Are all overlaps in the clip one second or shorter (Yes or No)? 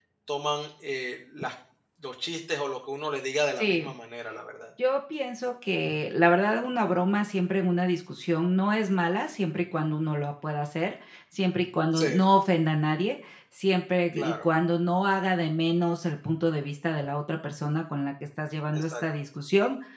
Yes